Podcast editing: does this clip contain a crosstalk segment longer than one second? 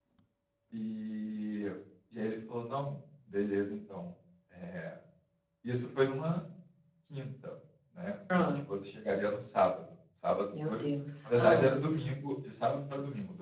No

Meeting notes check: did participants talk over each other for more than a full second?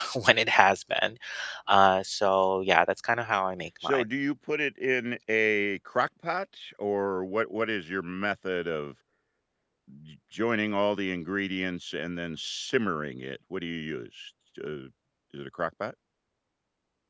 No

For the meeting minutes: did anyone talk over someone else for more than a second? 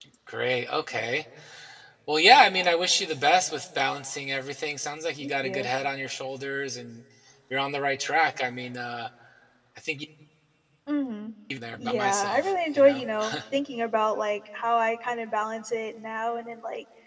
Yes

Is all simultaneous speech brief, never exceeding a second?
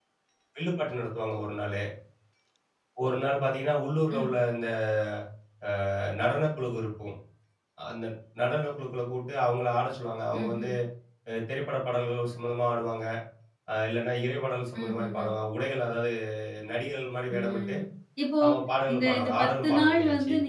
No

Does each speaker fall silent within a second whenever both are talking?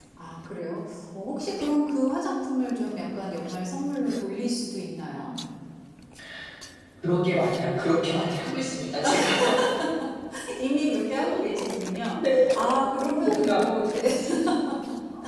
Yes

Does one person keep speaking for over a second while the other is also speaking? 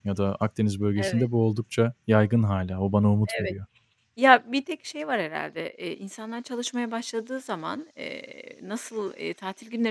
No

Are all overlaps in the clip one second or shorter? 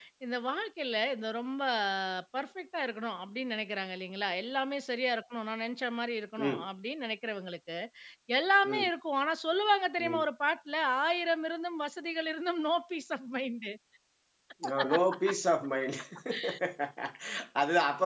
Yes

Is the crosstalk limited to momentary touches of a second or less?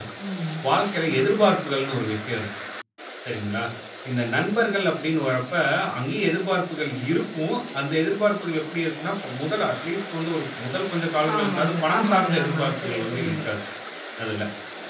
No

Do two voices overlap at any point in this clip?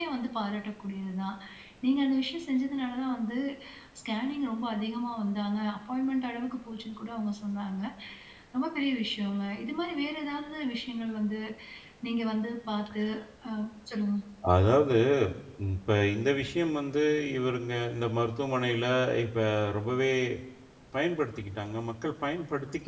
No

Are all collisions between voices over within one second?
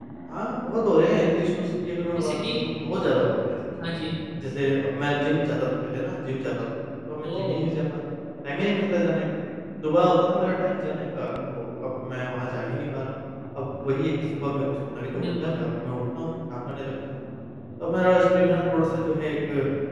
Yes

